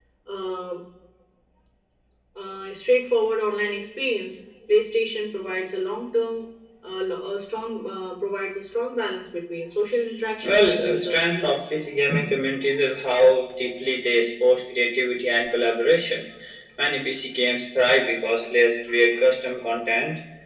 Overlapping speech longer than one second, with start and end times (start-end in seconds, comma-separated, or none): 10.4-11.7